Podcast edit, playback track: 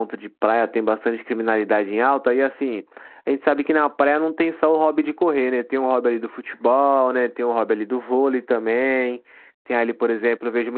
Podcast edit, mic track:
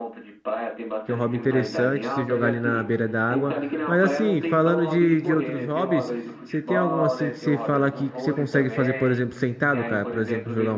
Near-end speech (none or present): present